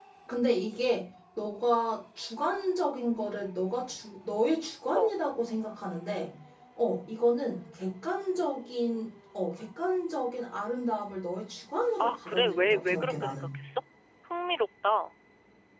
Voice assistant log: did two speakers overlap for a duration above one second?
Yes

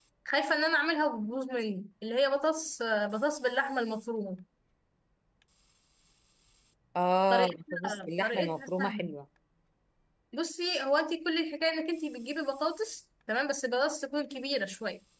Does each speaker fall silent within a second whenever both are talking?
No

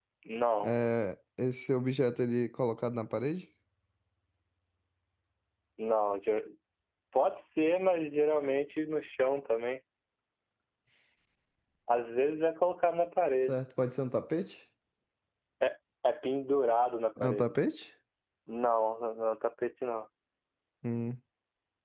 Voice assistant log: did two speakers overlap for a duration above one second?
No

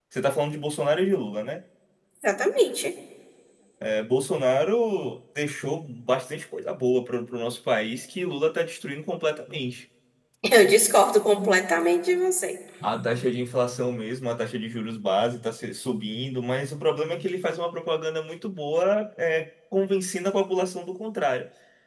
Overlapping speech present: No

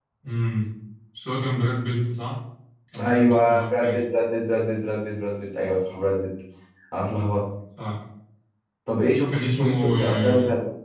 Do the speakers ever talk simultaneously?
Yes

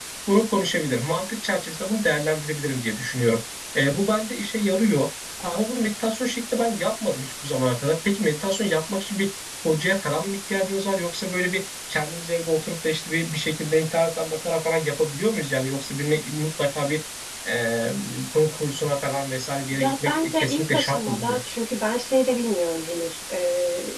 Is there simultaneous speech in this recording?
Yes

